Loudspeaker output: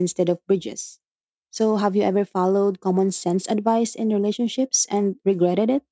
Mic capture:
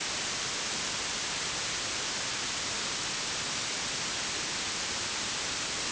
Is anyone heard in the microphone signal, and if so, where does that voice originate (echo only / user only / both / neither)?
neither